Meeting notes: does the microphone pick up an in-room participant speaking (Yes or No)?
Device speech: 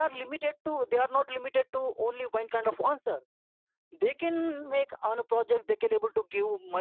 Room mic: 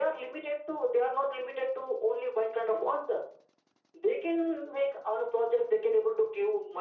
No